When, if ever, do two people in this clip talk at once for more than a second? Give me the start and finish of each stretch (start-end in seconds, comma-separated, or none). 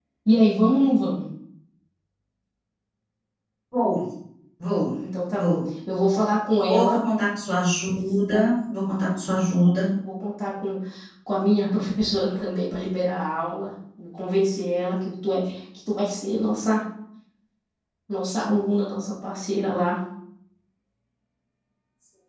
none